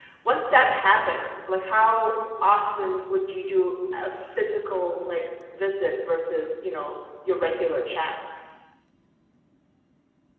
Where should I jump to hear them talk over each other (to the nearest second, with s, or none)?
none